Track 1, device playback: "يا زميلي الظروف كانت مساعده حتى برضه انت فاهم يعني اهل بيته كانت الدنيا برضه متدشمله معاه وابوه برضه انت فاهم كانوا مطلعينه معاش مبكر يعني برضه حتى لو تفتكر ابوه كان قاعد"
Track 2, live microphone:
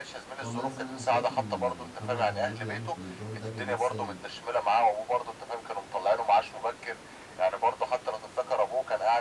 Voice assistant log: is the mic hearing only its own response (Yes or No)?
No